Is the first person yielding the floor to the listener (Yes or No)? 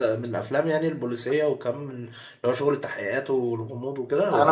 Yes